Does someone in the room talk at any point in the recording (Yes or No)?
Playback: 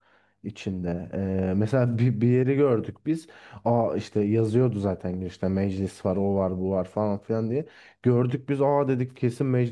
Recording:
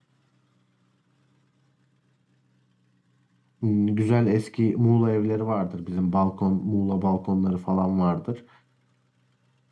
Yes